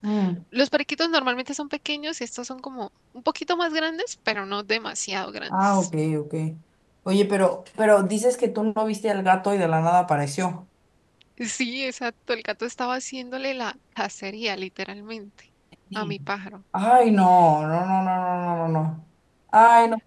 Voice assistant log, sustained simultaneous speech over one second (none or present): none